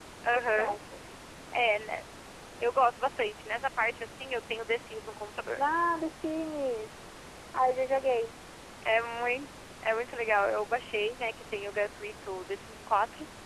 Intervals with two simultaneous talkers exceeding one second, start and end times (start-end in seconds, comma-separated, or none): none